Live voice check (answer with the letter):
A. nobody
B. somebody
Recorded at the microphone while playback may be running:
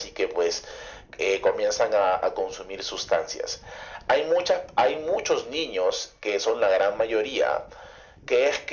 A